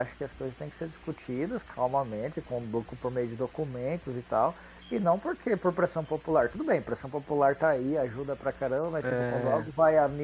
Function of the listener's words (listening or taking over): listening